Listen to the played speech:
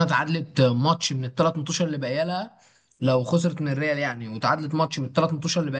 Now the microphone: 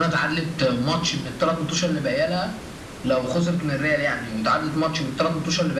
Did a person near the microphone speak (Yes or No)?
No